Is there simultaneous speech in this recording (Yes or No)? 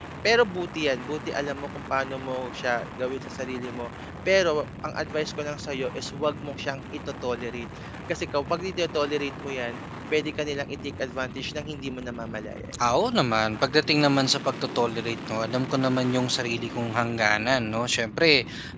No